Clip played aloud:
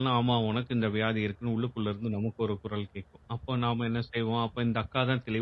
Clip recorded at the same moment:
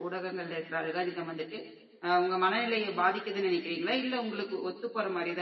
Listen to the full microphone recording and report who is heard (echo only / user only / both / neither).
user only